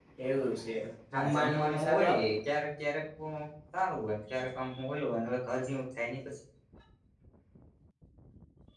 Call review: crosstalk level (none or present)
present